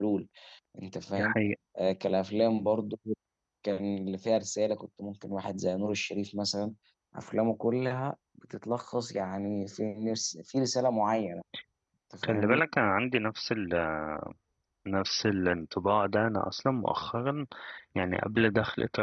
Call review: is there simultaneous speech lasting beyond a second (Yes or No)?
No